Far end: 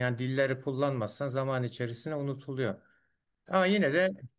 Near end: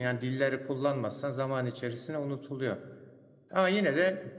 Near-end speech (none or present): none